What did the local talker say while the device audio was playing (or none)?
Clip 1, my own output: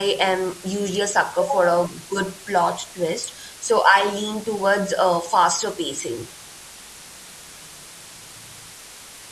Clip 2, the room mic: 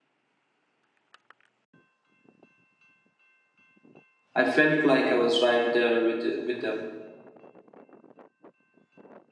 I felt like I was right there with with them.